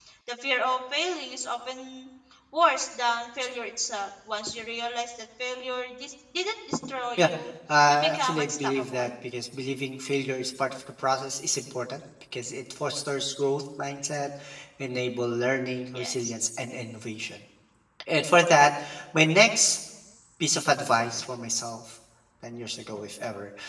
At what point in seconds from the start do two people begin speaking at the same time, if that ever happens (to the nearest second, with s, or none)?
8 s